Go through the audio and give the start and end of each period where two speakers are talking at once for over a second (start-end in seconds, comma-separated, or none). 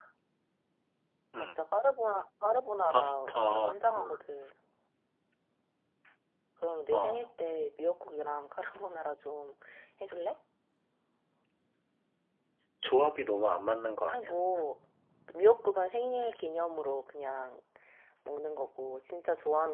2.9-4.2